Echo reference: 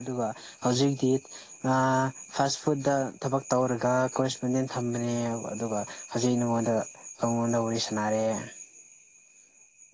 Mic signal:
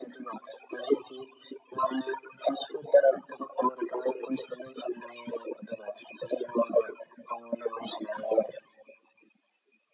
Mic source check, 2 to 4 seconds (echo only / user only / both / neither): echo only